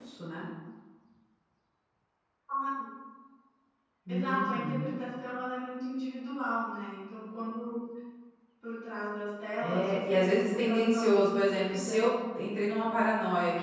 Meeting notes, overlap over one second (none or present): present